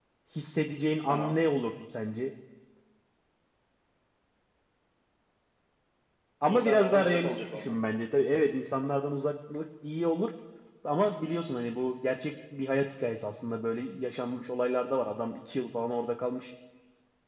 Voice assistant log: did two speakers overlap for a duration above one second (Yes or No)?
Yes